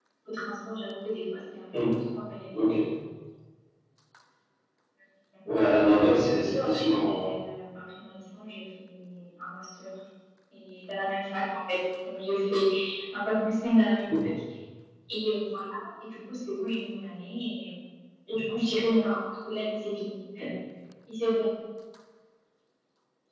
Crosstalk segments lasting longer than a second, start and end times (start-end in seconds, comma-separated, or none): 5.9-7.3